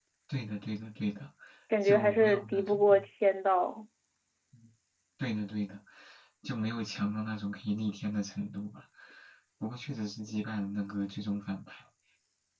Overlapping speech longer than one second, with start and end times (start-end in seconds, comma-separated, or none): 1.8-3.0